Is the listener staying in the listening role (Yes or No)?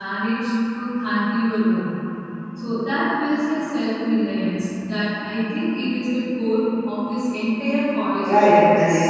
No